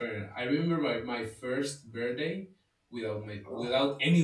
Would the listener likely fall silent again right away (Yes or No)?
Yes